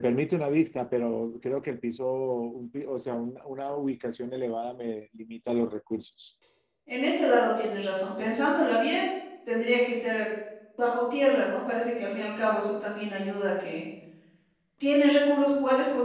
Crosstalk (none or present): none